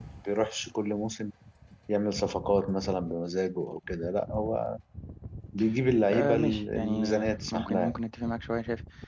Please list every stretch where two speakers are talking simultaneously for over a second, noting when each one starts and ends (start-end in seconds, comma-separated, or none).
6.1-7.9